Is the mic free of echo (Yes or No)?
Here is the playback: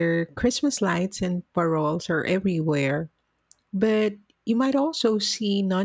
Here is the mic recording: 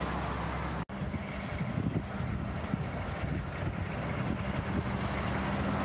Yes